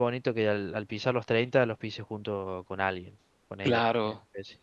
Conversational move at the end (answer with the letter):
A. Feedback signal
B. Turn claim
B